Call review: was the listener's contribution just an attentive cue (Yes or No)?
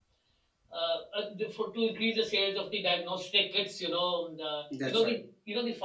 Yes